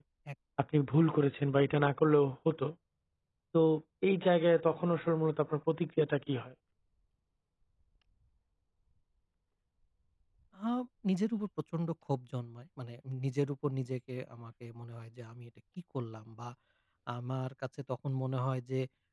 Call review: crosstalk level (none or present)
none